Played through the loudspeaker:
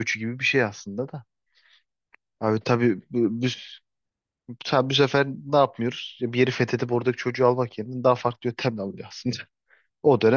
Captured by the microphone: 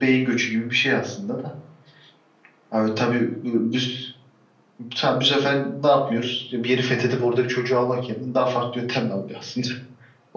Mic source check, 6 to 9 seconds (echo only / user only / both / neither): echo only